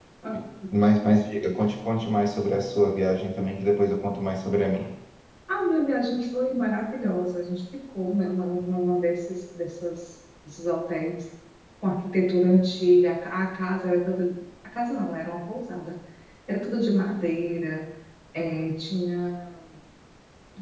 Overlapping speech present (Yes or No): No